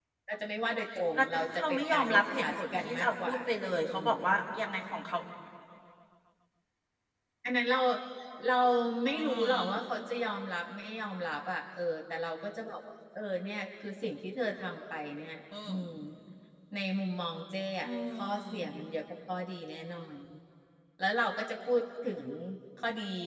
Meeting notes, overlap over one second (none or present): present